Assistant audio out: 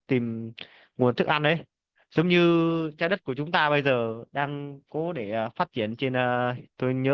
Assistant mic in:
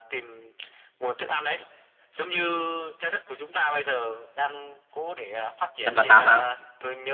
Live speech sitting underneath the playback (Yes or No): No